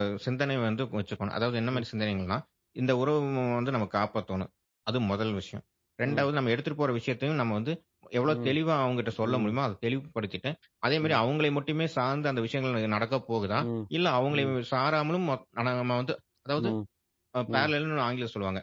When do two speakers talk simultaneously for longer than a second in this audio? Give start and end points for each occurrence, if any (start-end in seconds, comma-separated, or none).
none